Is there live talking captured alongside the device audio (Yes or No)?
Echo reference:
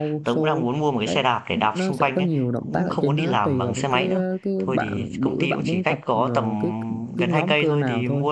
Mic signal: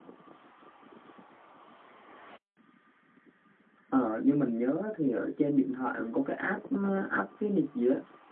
Yes